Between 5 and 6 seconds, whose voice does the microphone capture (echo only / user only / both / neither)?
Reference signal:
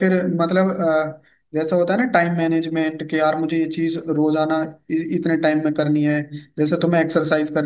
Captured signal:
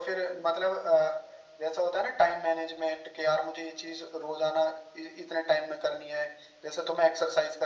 echo only